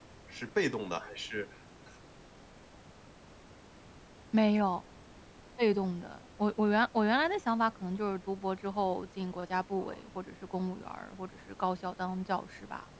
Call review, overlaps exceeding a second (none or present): none